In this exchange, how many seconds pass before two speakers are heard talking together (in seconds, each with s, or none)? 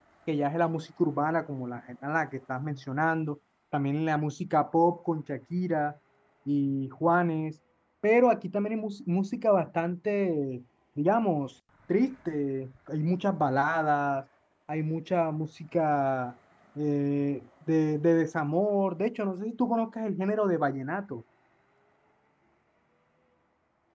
none